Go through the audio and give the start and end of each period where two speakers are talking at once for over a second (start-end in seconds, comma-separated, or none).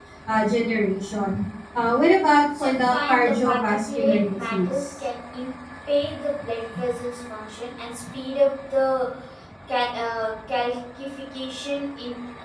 2.6-4.9